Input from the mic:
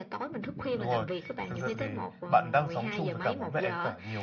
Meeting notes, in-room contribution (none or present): present